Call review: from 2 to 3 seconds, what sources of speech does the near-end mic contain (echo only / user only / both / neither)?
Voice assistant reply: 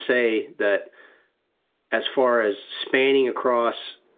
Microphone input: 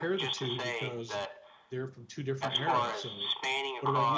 both